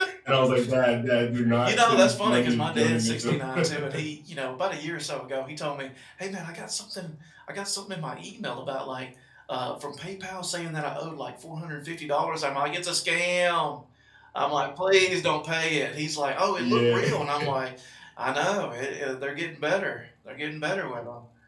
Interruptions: present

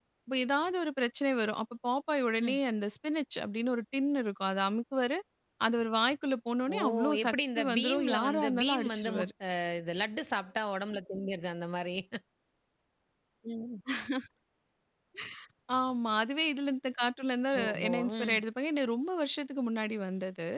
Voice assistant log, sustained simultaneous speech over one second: present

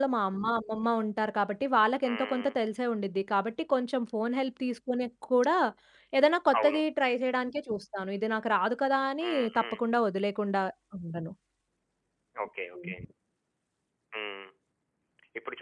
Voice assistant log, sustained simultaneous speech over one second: none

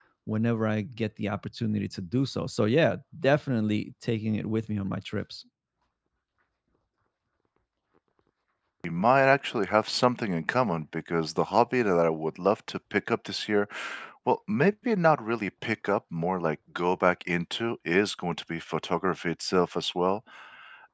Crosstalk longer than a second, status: none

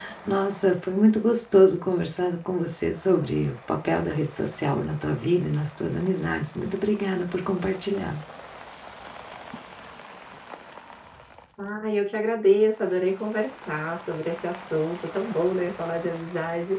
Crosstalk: none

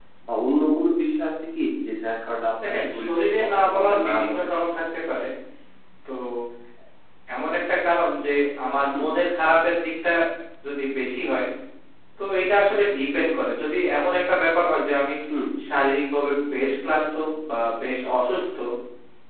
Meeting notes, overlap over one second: present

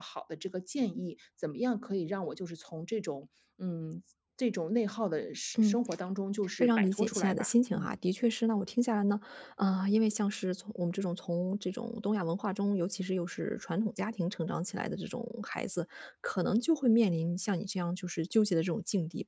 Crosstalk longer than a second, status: present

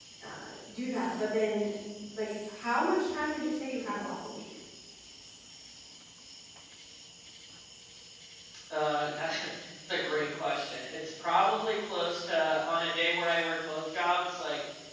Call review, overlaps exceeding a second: none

